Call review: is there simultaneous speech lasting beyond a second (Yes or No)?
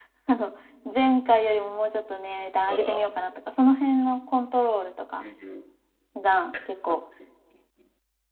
No